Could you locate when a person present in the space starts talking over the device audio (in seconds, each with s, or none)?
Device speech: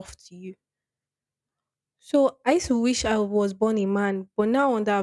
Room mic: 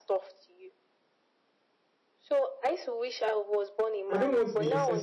4.1 s